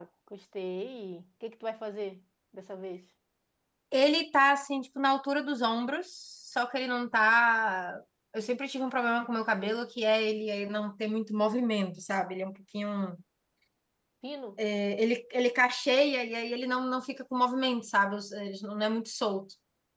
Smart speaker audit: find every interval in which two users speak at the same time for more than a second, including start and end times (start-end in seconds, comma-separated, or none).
none